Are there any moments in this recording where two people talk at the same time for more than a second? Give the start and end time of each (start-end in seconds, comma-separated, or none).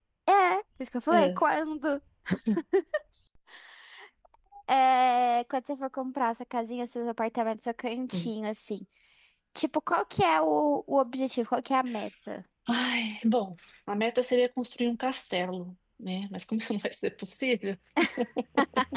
none